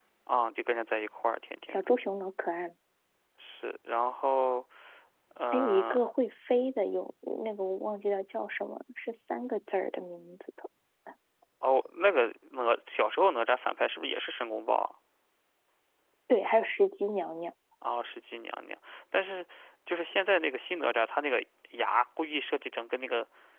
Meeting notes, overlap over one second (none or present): none